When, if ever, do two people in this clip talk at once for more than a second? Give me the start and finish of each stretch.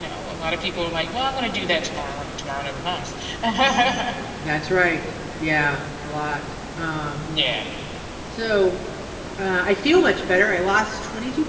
none

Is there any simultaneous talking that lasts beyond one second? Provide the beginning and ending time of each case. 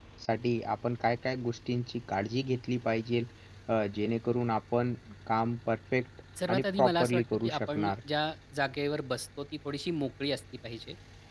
6.5-7.9

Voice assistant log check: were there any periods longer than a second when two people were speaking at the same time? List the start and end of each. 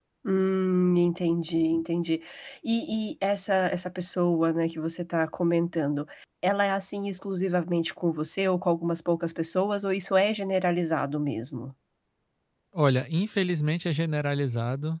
none

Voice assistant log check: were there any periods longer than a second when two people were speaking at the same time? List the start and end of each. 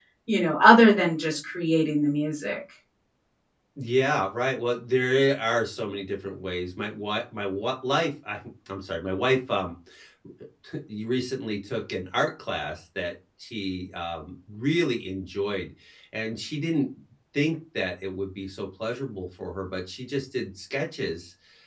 none

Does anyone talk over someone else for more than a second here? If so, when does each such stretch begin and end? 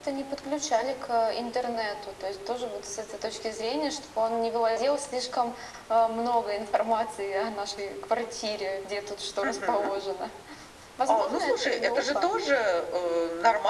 11.1-12.3

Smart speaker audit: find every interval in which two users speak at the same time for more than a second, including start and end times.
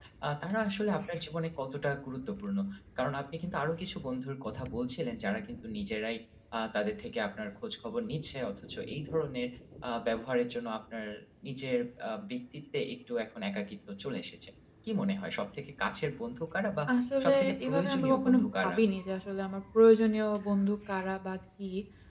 17.2-18.8

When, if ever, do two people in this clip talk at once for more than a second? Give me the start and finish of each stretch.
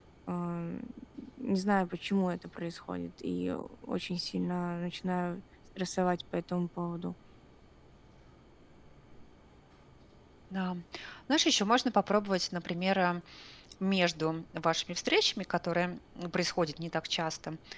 none

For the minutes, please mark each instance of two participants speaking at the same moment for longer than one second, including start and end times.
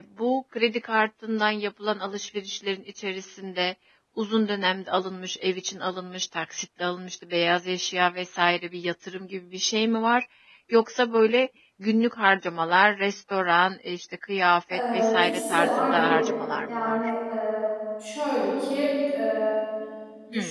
14.7-17.0

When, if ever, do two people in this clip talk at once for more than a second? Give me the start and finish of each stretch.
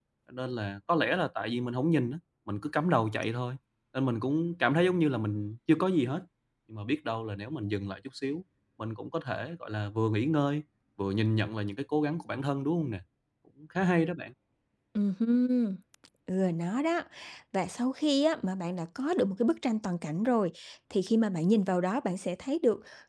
none

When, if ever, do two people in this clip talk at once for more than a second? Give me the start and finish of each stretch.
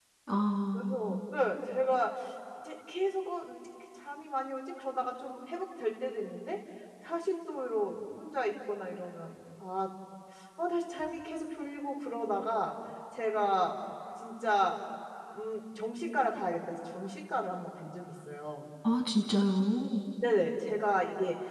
none

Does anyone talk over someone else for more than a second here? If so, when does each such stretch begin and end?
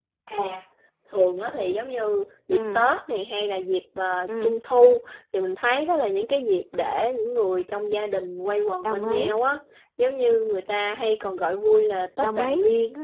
none

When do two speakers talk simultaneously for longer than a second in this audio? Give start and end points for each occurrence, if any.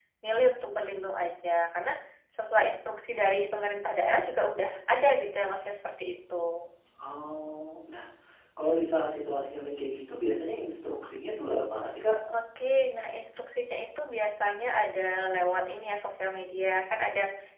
none

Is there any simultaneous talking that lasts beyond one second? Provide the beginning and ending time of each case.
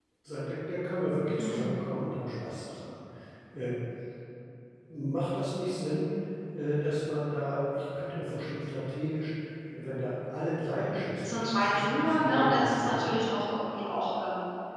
11.2-13.1

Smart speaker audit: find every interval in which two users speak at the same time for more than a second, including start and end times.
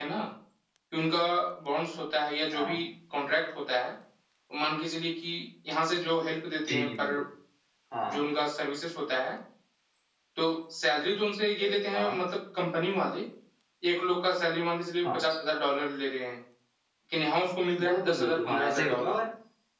17.9-19.1

